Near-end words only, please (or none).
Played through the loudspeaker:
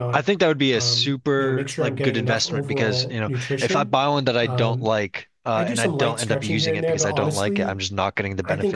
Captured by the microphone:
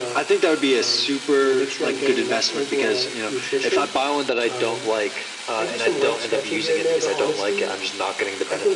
none